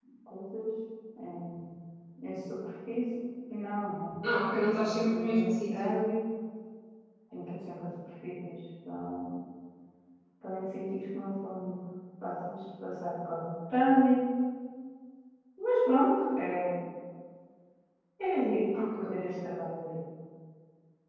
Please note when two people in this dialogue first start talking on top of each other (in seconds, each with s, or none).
4.5 s